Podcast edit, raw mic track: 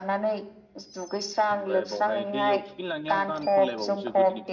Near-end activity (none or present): present